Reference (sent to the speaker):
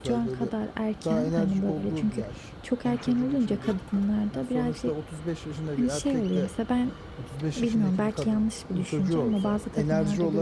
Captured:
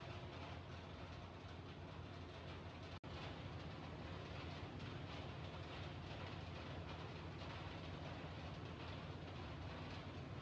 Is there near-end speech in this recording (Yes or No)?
No